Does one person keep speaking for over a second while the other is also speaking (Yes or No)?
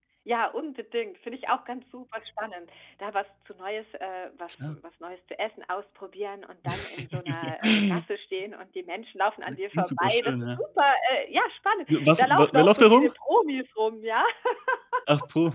Yes